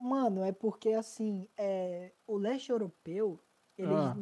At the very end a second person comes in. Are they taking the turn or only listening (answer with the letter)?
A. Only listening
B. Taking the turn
A